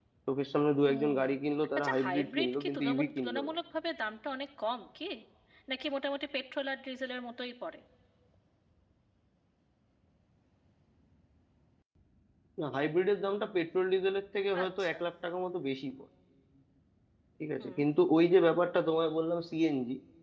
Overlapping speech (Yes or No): Yes